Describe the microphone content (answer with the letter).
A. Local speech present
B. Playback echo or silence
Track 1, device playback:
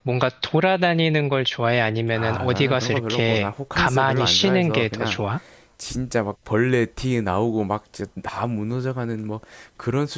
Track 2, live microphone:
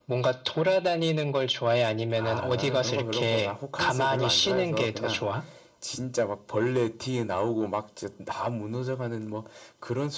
B